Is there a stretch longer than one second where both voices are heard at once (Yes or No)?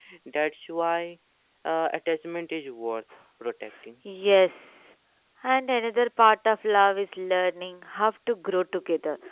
No